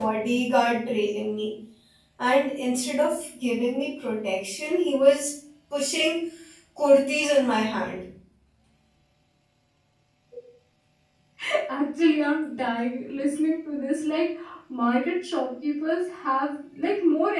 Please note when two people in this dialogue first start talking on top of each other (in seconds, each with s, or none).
none